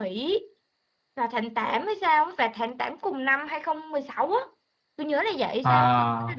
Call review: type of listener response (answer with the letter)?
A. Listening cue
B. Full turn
A